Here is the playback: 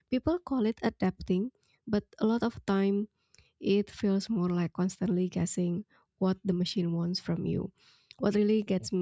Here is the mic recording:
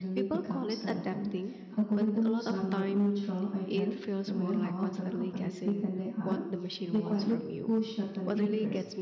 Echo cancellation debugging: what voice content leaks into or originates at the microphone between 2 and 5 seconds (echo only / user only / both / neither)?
both